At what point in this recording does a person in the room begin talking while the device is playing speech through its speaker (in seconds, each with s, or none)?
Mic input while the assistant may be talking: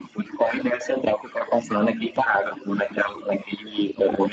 none